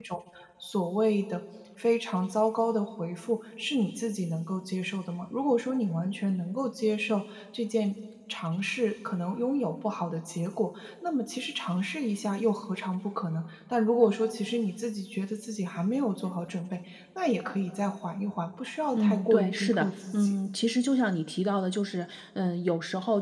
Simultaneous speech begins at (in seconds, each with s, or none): 18.9 s